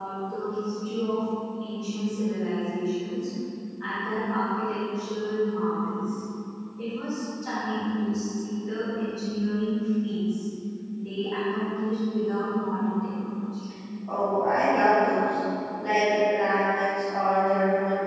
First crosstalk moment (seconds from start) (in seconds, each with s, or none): none